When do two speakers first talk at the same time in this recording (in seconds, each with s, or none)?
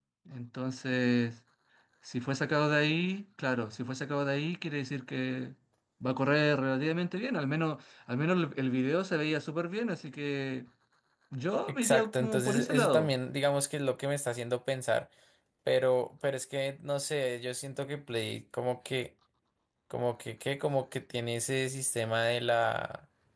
11.7 s